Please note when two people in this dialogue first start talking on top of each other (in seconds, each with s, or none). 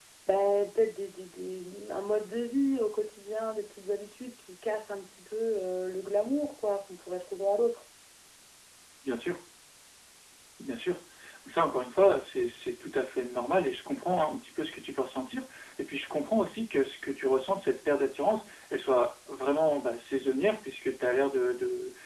none